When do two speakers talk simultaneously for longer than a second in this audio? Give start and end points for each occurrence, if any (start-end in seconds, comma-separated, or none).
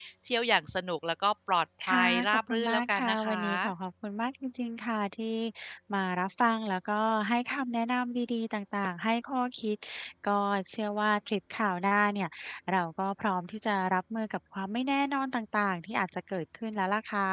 1.8-3.7